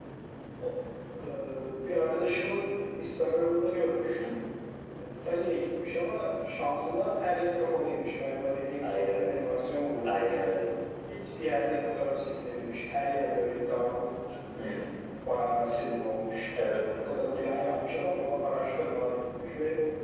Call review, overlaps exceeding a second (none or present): none